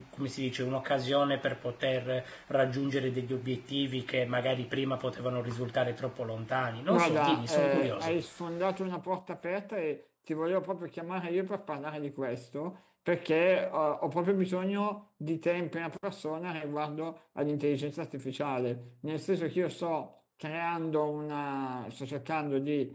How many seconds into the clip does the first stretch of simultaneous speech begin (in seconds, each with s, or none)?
6.9 s